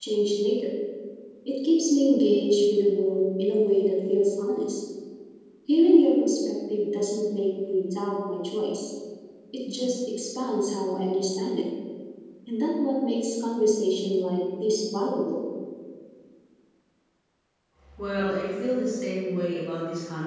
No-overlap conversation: Yes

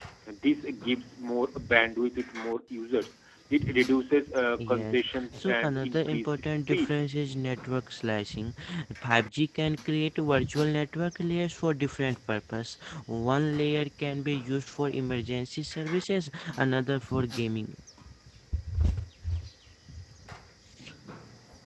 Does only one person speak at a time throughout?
No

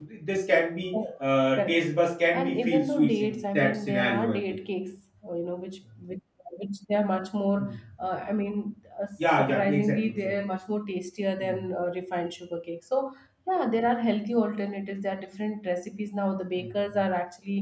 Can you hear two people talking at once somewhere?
Yes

